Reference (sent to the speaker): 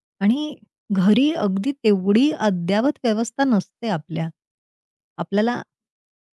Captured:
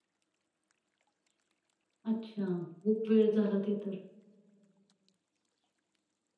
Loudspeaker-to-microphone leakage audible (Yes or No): No